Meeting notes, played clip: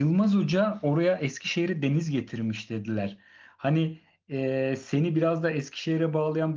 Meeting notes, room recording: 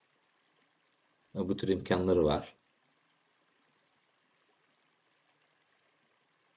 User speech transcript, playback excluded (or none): Ee, bu tür imkanları var.